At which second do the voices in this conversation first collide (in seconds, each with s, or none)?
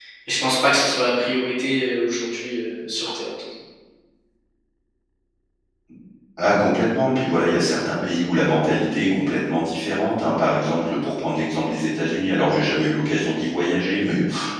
none